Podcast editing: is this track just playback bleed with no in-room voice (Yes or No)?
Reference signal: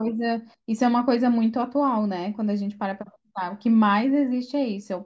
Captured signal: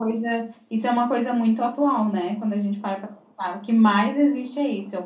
Yes